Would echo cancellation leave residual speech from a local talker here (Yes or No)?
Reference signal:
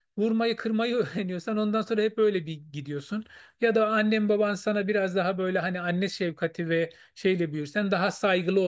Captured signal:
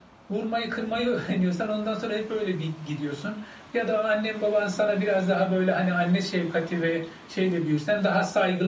No